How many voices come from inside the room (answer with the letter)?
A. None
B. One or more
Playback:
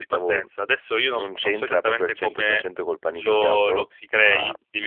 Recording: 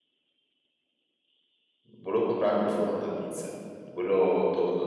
B